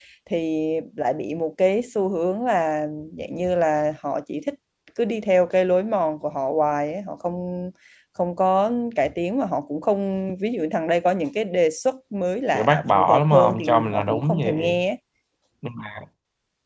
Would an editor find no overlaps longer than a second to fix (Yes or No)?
No